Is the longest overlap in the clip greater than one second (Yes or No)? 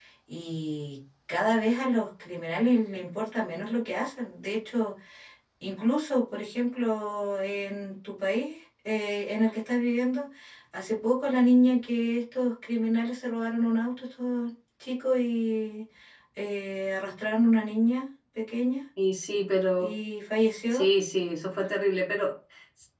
No